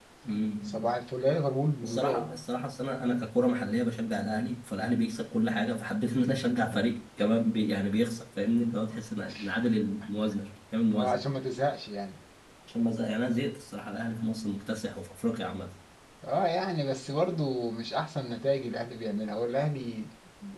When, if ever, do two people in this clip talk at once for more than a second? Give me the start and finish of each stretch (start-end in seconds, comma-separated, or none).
none